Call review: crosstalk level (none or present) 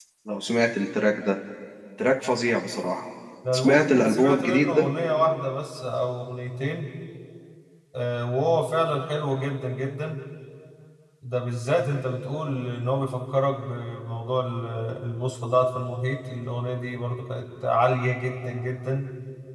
present